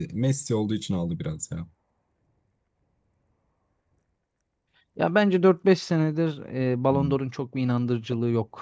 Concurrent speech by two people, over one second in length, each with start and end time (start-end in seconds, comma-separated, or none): none